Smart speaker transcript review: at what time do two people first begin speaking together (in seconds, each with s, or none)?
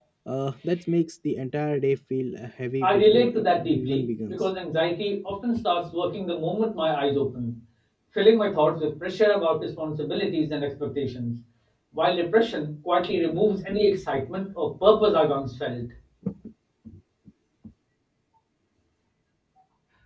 2.9 s